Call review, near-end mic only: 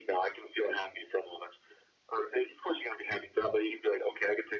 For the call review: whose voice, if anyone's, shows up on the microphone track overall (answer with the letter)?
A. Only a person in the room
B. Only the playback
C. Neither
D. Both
B